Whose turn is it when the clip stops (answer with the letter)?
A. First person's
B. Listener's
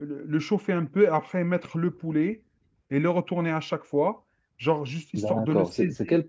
B